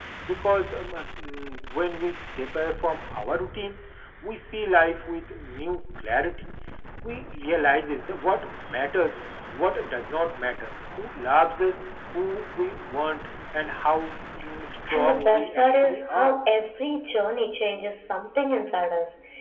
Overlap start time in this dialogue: 15 s

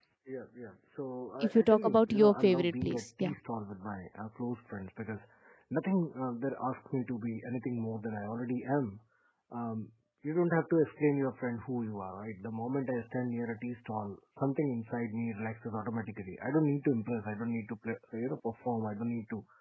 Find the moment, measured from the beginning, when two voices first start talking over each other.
1 s

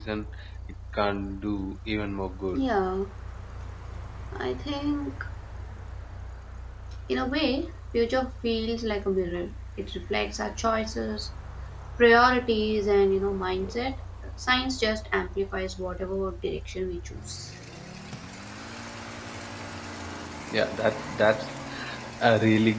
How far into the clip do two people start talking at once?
none

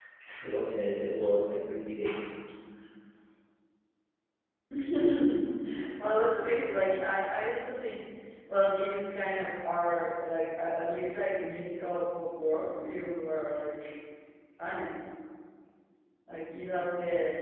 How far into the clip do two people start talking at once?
none

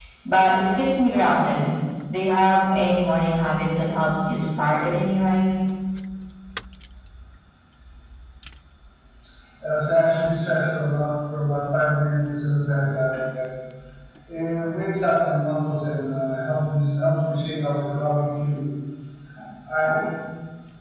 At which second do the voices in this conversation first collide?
none

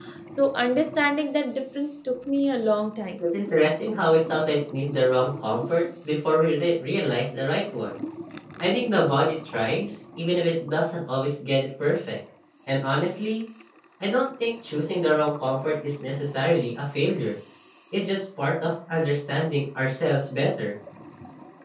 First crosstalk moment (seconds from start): none

